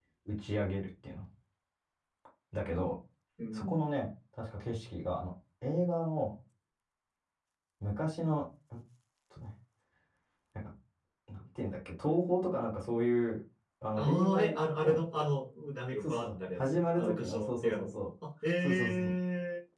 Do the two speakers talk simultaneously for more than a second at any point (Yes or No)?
Yes